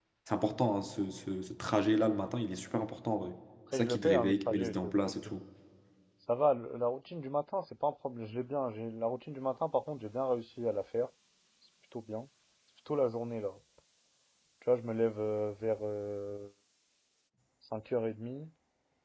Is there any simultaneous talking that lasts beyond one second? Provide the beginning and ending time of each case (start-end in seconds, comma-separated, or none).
3.7-5.1